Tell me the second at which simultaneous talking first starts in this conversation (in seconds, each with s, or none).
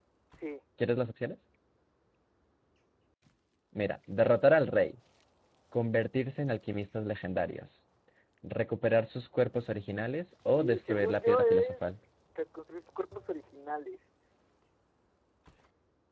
10.5 s